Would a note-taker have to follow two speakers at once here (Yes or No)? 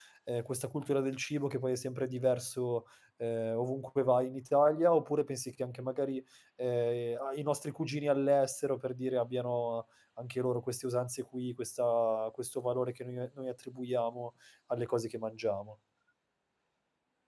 No